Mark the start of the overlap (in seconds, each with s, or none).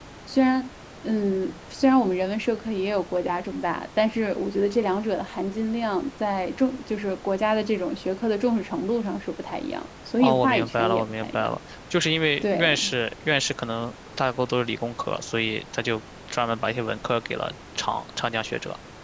10.2 s